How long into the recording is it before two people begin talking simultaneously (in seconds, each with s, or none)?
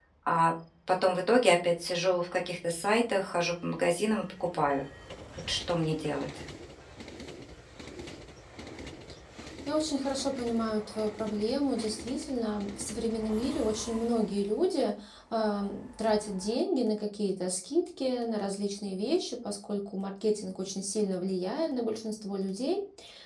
none